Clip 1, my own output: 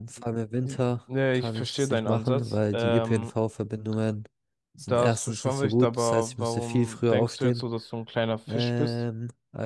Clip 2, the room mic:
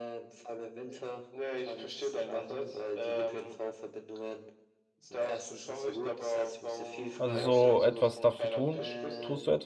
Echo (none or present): present